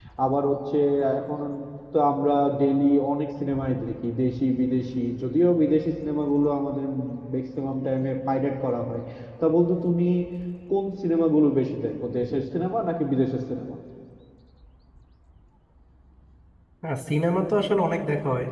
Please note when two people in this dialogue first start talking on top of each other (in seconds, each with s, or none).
none